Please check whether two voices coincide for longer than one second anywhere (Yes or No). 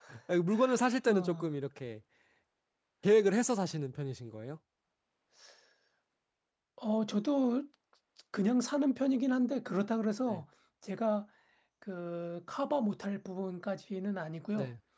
No